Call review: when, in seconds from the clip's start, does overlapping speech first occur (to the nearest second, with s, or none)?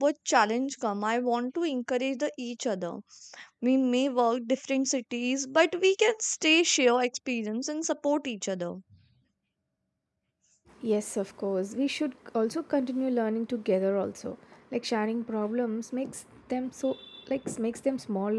none